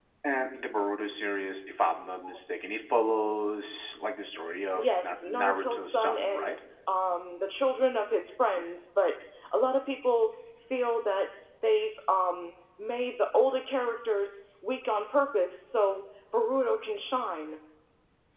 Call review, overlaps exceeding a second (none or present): present